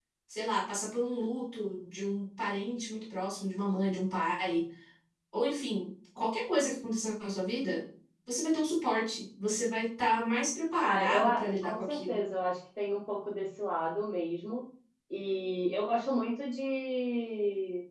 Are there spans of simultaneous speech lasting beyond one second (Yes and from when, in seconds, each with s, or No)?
Yes, from 10.8 s